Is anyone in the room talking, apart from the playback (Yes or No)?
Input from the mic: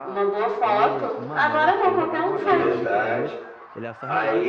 Yes